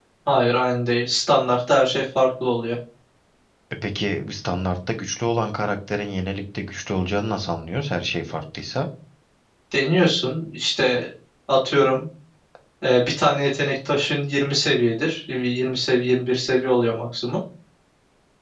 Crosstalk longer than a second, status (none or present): none